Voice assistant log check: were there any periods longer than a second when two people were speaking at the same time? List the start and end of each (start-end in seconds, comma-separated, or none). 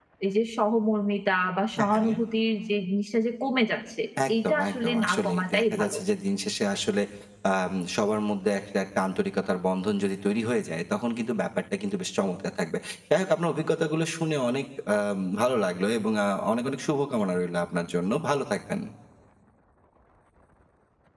4.3-6.0